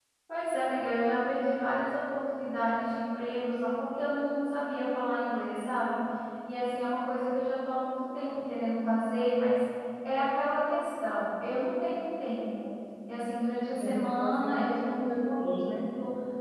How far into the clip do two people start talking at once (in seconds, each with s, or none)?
13.8 s